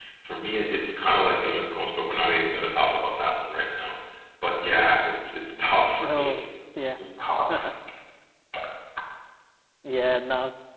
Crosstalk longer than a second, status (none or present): none